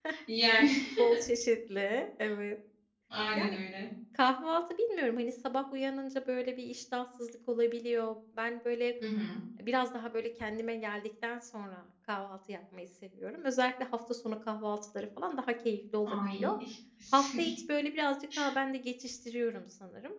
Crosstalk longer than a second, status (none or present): none